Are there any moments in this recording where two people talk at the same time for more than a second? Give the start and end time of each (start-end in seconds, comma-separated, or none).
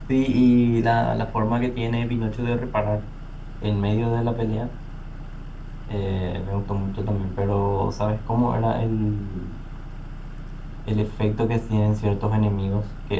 none